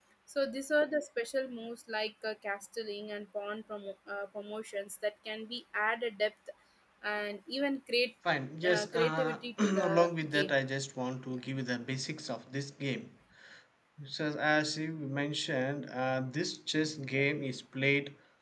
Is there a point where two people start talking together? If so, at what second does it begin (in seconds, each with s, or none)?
8.7 s